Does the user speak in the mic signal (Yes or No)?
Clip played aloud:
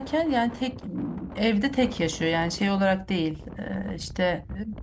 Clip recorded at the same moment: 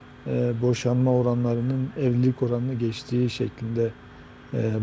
Yes